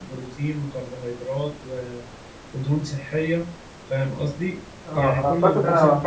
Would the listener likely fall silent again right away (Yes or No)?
No